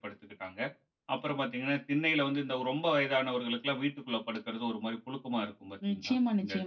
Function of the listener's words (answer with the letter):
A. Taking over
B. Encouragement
A